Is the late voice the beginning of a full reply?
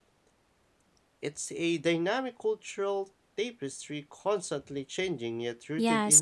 Yes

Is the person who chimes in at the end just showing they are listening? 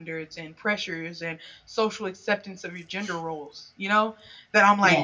Yes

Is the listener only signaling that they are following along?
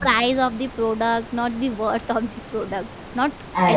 Yes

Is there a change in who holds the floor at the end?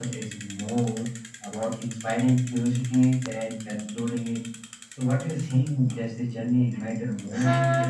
Yes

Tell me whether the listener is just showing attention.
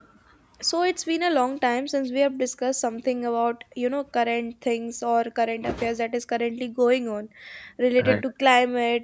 Yes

